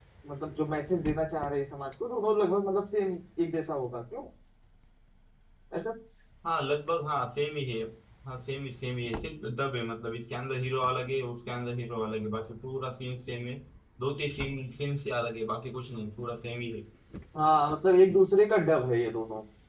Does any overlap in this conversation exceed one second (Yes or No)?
No